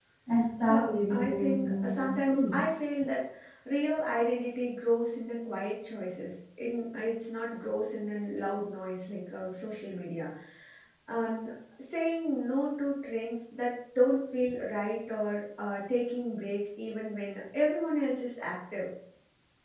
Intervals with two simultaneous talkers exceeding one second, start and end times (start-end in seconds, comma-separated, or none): 0.7-2.6